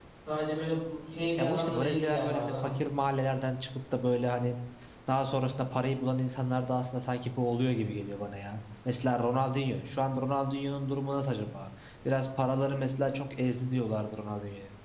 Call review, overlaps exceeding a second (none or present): present